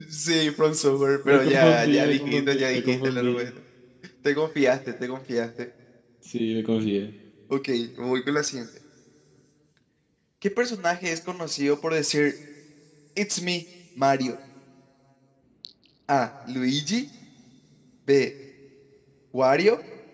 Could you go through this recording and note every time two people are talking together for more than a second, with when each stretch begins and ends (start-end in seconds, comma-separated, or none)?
1.3-3.3